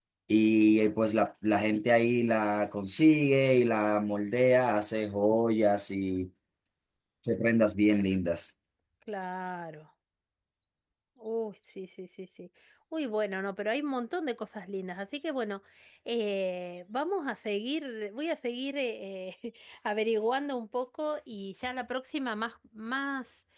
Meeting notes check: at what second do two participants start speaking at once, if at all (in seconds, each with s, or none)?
none